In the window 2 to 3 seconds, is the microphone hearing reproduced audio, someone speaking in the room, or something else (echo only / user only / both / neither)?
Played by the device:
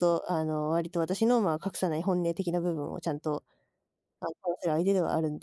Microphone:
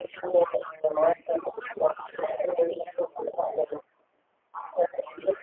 echo only